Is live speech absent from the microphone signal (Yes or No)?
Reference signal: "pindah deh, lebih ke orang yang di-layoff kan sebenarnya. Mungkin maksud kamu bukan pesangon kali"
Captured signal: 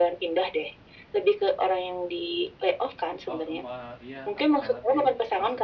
No